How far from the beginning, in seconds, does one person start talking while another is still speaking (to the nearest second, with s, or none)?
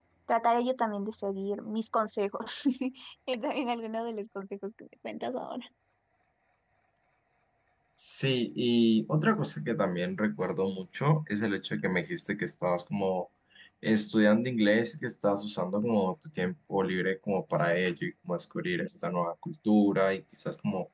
none